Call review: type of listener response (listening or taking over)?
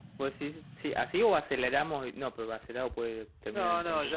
taking over